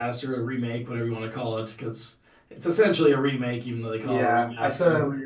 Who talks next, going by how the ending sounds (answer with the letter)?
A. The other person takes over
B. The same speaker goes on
A